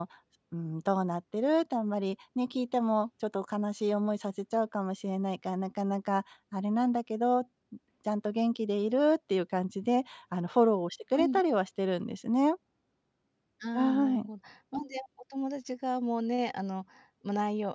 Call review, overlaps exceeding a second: none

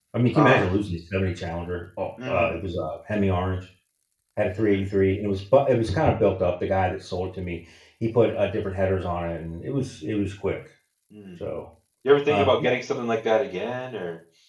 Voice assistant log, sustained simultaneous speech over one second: none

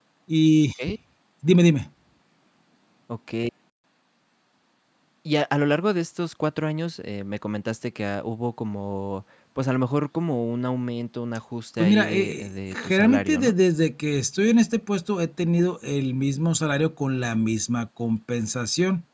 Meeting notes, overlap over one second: present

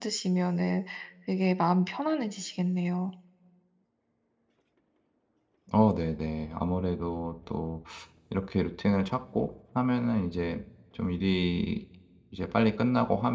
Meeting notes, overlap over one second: none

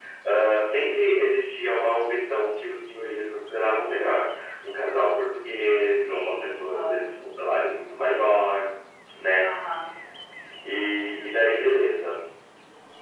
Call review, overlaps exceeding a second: present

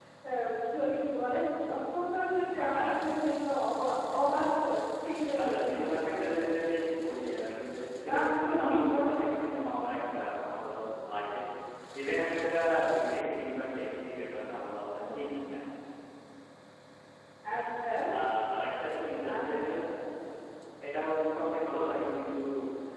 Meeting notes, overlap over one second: present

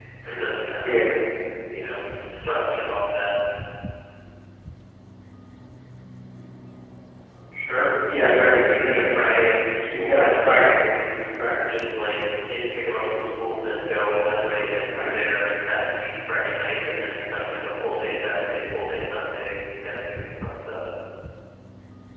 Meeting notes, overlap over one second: present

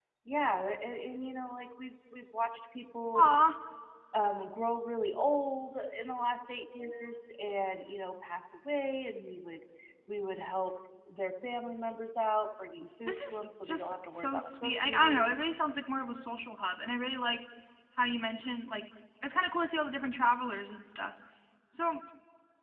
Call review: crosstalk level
present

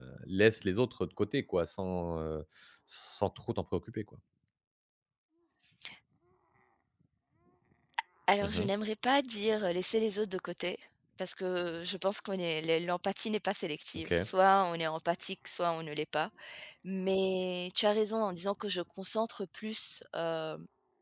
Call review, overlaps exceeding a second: none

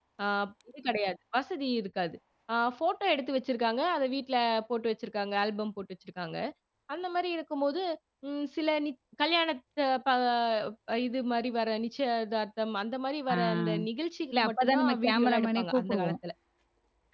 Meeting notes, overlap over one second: present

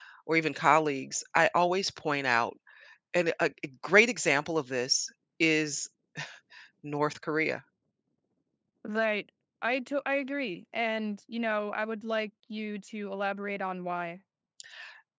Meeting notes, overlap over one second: none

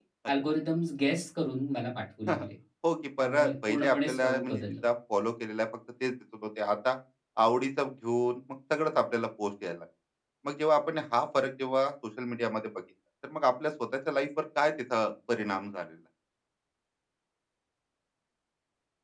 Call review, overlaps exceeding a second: present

